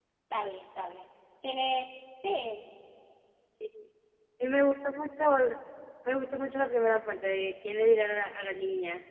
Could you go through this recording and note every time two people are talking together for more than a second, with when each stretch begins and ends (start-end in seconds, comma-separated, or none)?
none